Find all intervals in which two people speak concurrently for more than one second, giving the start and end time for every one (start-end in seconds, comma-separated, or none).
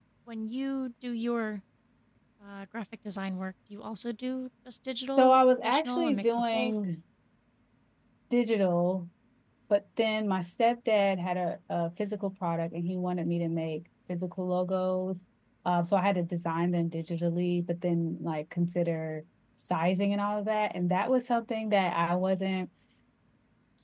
5.2-6.7